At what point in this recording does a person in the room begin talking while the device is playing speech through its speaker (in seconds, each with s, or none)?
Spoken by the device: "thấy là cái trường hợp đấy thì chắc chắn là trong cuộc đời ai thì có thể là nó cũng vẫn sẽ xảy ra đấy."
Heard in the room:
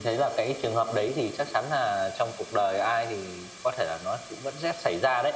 none